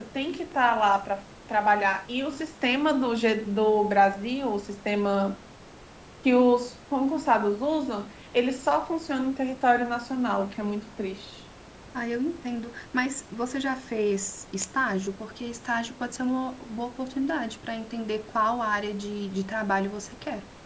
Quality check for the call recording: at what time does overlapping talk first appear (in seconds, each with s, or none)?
none